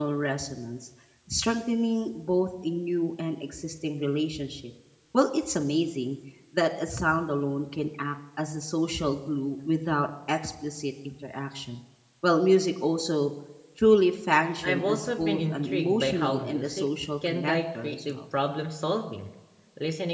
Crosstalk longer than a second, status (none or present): present